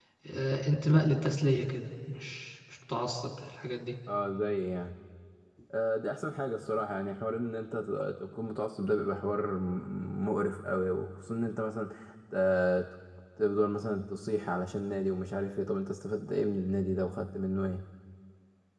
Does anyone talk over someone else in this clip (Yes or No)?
No